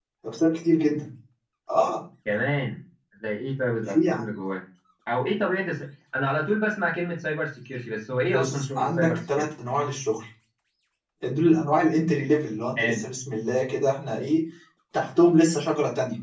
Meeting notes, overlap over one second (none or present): present